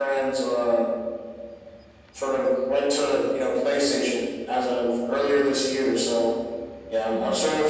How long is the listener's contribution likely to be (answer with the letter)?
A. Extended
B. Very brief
B